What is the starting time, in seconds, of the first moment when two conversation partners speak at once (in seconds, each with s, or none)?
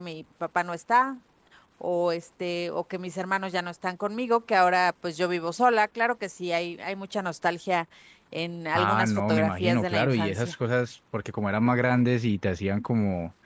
8.7 s